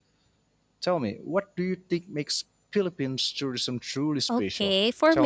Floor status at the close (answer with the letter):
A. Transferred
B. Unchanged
A